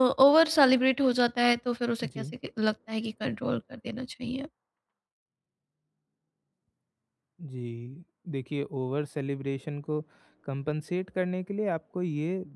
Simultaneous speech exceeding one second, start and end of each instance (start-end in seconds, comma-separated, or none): none